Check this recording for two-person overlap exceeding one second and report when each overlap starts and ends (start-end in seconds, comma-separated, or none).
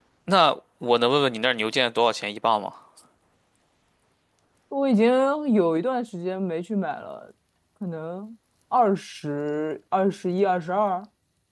none